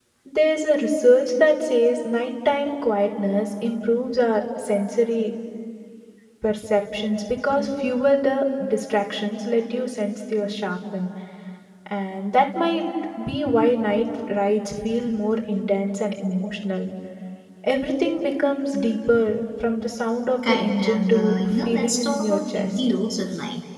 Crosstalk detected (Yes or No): Yes